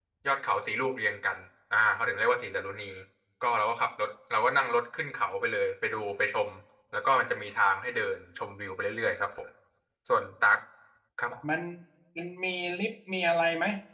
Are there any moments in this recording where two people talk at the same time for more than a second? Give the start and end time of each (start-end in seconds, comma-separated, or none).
none